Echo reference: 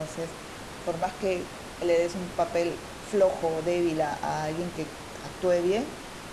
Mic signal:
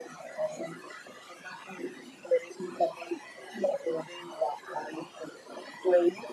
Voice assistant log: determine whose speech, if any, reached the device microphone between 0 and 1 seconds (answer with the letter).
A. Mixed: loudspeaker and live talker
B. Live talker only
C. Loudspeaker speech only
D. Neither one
C